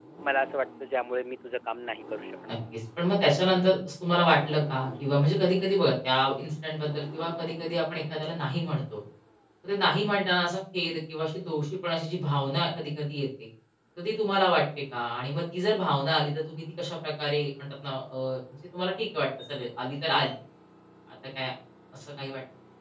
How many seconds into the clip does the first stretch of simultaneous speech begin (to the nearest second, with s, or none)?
none